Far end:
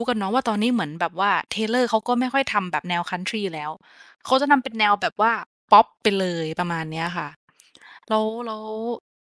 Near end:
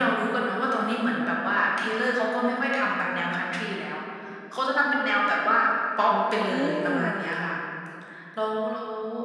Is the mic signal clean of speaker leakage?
No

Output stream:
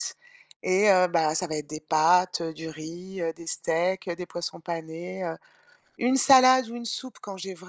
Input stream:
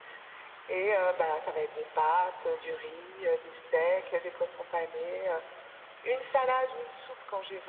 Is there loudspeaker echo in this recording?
Yes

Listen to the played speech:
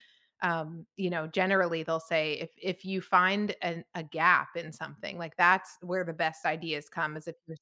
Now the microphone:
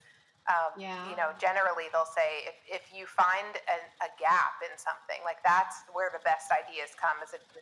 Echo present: Yes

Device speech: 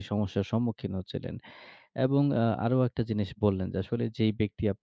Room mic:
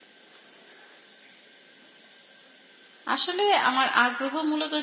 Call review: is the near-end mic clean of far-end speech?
Yes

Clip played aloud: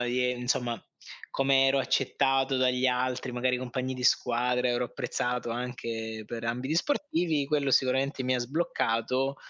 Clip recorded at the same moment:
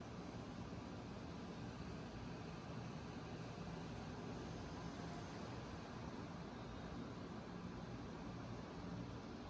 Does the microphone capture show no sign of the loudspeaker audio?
Yes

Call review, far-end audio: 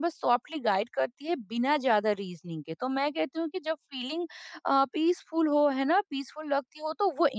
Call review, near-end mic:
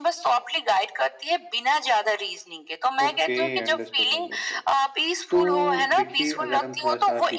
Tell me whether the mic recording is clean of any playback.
No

